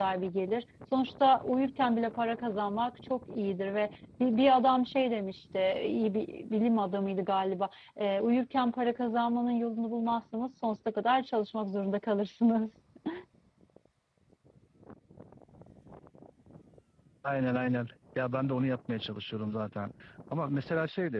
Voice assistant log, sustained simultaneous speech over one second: none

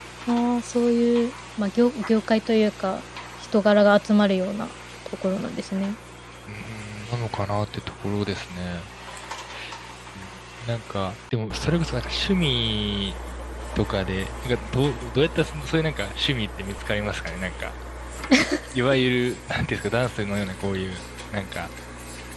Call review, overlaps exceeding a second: none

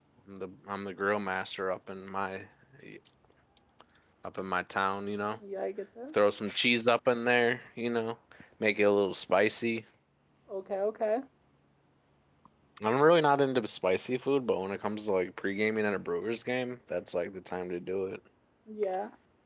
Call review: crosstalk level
none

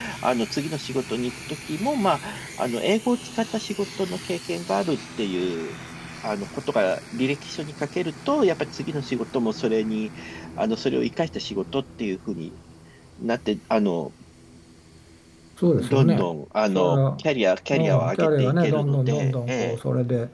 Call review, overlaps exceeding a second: present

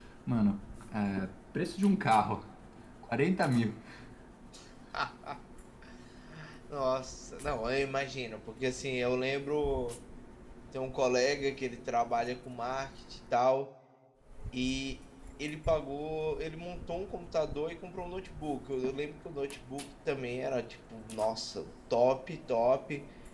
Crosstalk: none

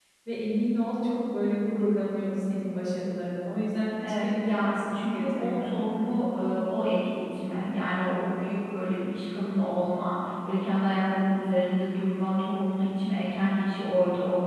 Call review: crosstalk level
present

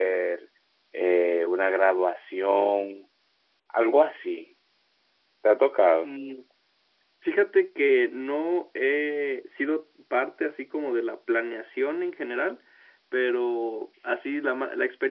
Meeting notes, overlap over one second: none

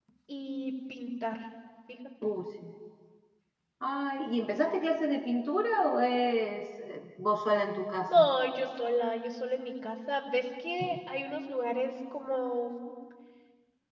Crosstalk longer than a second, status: none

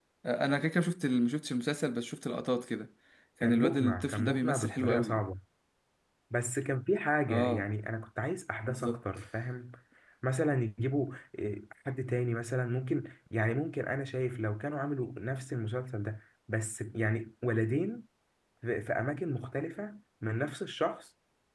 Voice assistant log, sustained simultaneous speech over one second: present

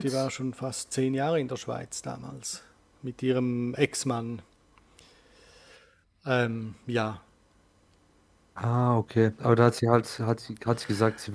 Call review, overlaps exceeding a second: none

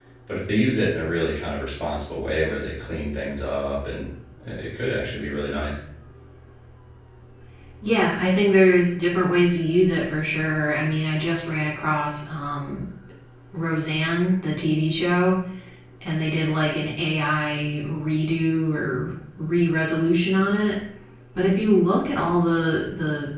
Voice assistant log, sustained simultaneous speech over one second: none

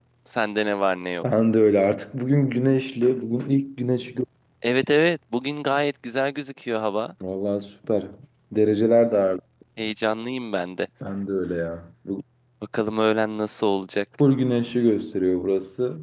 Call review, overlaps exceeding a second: none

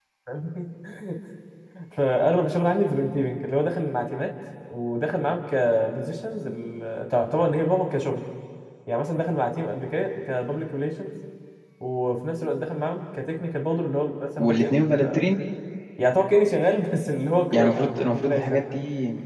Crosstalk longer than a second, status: present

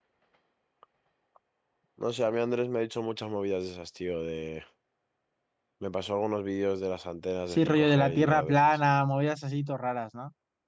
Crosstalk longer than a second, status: present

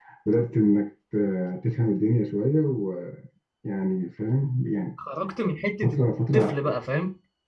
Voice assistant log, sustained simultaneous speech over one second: none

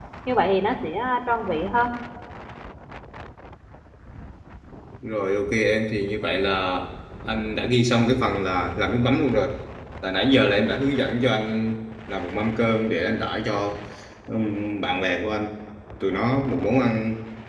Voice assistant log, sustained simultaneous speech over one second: none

